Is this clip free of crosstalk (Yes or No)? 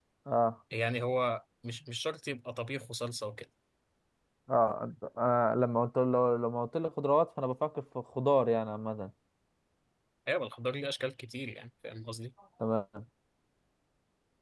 Yes